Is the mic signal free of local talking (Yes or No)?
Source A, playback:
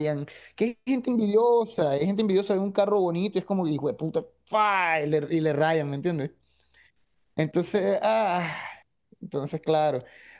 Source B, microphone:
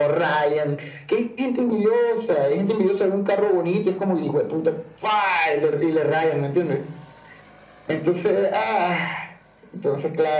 Yes